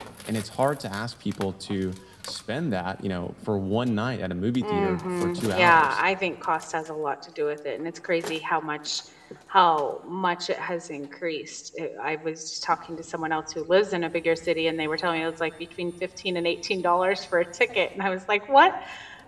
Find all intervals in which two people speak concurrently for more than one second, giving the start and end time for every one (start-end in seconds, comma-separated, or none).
4.6-6.0